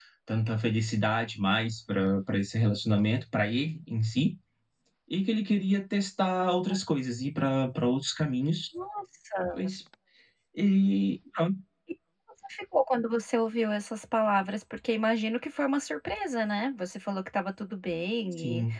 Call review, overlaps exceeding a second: none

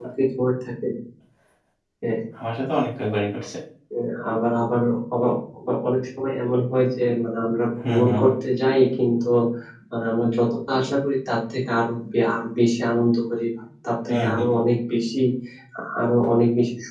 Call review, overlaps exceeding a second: none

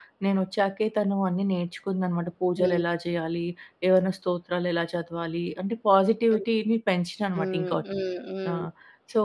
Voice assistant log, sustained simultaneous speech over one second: none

